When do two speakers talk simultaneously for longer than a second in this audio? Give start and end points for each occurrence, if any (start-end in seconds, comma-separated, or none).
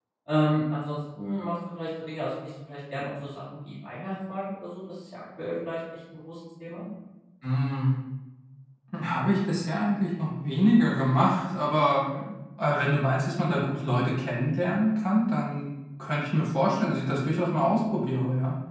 none